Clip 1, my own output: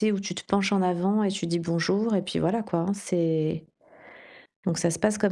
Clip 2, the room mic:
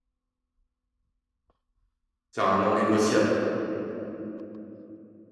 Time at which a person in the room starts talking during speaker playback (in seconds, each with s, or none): 2.3 s